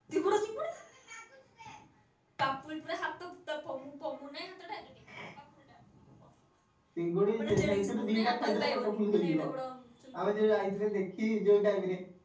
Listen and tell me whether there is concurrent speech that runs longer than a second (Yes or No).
Yes